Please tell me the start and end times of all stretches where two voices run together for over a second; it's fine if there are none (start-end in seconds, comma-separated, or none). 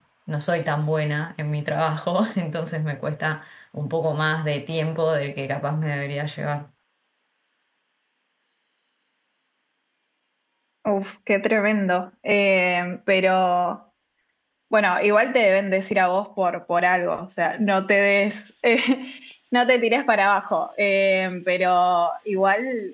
none